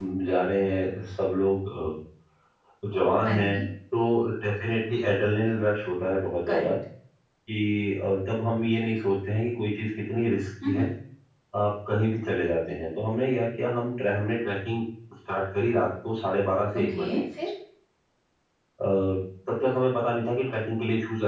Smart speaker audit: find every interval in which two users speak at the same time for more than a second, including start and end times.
none

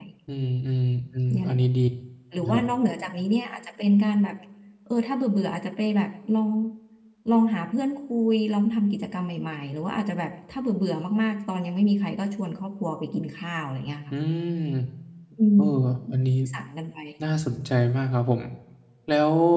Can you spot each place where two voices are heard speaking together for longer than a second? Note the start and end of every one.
none

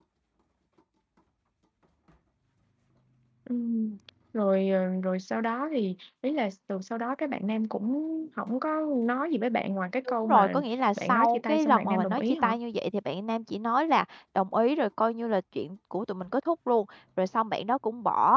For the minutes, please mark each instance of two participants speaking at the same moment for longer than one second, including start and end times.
11.0-12.5

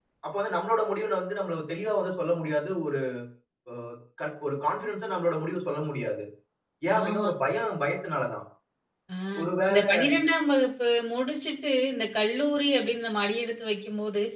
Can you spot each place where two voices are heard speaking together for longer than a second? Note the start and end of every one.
none

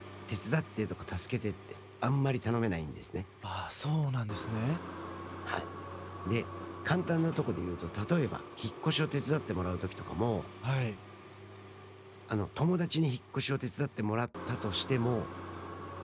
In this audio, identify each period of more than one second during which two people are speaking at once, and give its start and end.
none

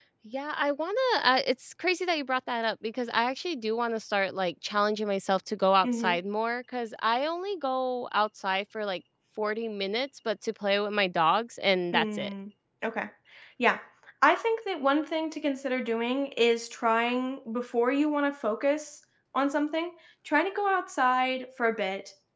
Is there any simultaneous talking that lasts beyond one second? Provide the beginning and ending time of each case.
none

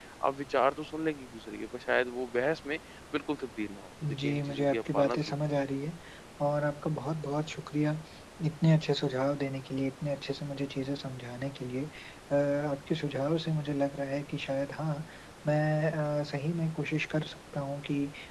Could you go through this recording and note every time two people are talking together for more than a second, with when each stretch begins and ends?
4.0-5.4

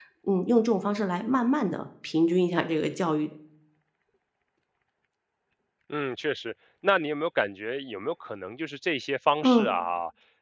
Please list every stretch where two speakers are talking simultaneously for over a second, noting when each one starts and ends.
none

